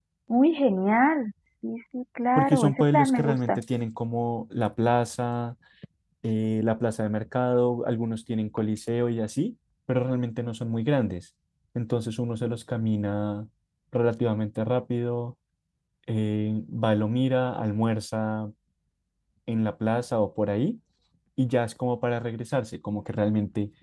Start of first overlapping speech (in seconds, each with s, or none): 2.4 s